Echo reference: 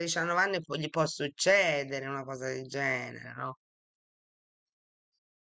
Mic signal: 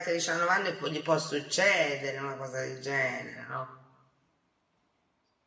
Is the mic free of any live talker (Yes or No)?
Yes